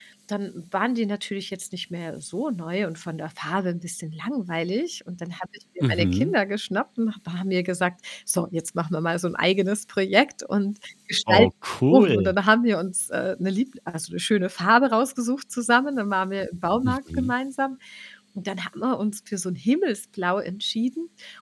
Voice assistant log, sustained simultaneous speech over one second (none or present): none